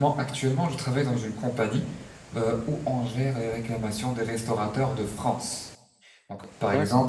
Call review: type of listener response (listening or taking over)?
listening